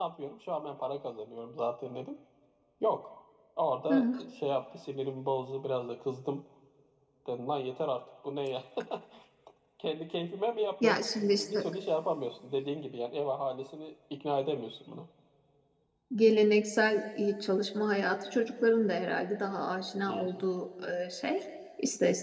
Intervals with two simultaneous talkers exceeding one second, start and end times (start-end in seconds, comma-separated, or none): none